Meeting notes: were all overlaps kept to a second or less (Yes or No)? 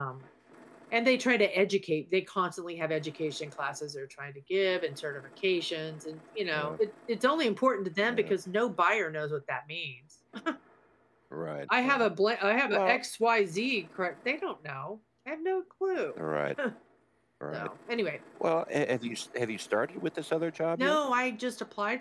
Yes